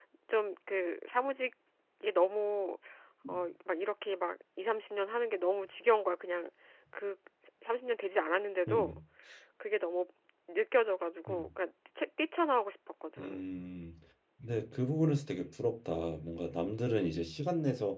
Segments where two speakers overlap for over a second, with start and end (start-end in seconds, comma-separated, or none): none